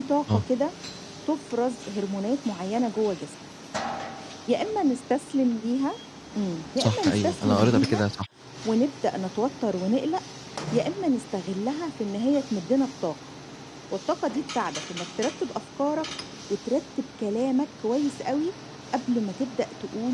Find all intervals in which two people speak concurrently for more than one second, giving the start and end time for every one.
6.8-8.0

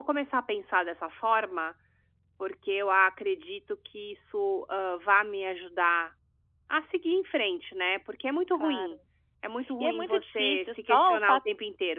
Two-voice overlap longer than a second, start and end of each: 9.8-11.4

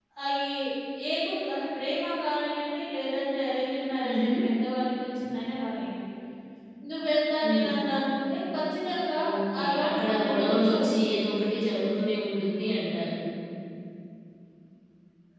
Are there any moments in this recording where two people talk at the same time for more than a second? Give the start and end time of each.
9.6-10.9

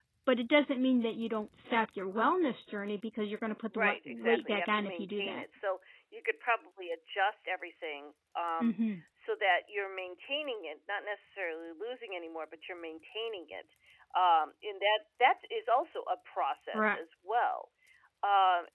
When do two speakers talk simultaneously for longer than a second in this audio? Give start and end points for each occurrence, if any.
3.8-5.4

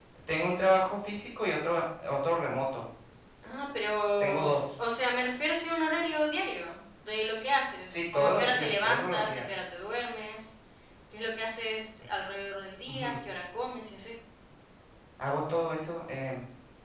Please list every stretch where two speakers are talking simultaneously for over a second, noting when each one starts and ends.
7.9-9.5

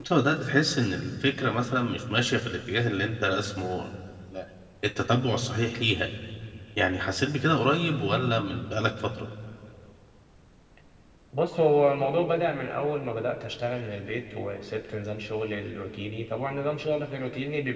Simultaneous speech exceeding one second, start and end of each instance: none

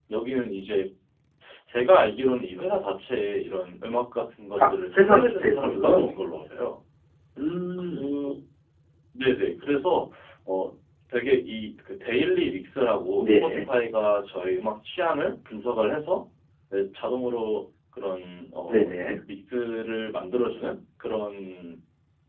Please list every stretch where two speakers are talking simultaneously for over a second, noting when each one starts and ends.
4.7-6.1

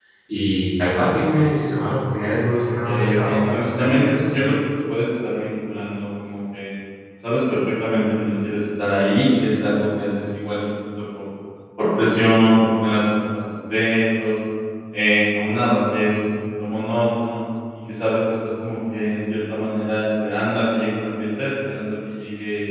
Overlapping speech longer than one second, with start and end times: 2.6-4.5

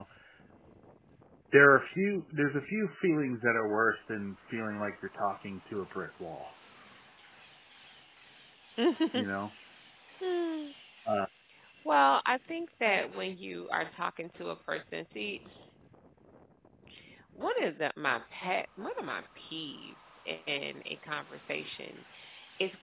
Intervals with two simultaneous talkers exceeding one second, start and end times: none

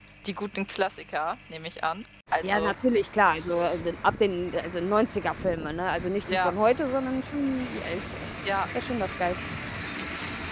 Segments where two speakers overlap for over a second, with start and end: none

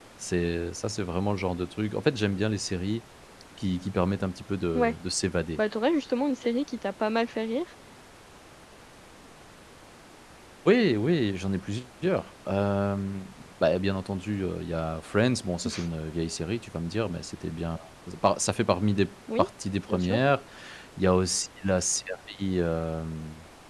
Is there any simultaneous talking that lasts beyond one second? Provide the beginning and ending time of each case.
none

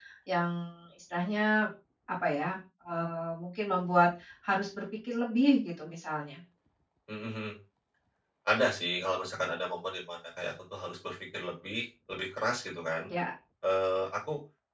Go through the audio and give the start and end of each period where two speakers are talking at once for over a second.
none

